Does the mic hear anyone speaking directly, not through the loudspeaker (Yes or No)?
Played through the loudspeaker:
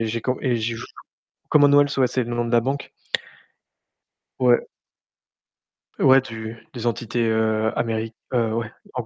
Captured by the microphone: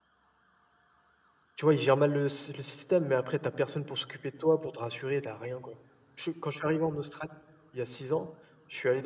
Yes